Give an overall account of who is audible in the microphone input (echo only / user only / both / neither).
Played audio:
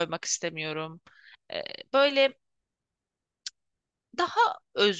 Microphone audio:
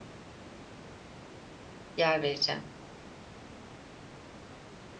user only